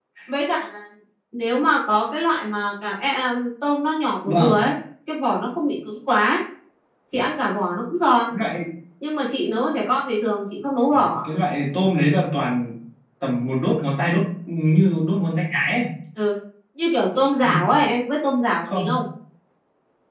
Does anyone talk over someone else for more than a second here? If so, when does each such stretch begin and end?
none

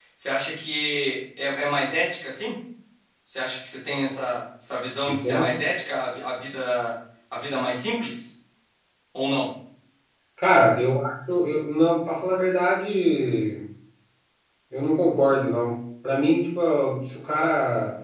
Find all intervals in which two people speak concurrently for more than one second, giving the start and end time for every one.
none

